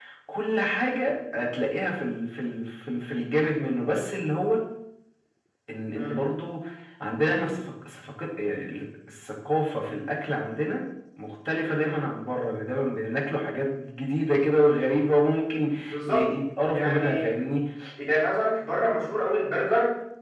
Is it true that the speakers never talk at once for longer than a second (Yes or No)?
Yes